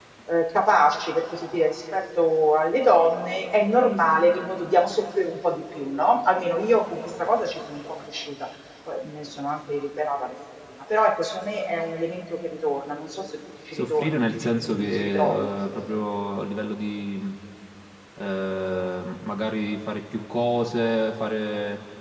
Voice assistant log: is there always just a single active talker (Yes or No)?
No